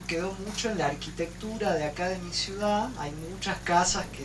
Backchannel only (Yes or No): Yes